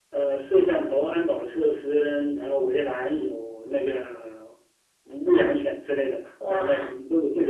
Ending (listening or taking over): listening